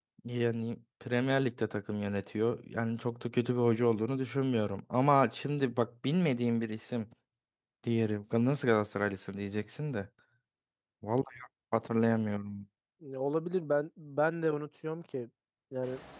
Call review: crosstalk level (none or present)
none